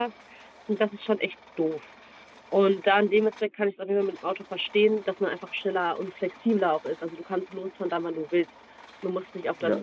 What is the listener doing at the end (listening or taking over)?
listening